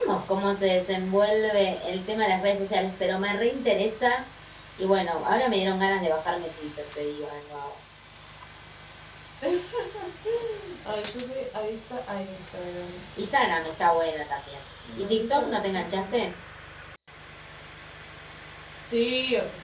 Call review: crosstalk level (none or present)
present